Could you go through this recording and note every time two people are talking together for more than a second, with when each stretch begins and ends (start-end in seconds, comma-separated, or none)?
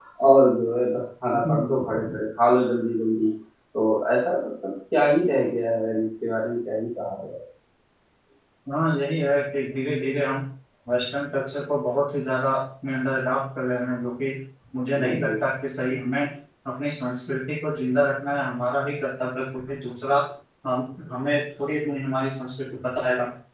none